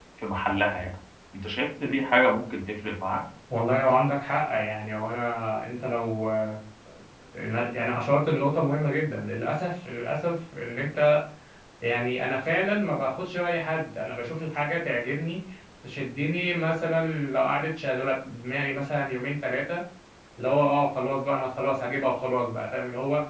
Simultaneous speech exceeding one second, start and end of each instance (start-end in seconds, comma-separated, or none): none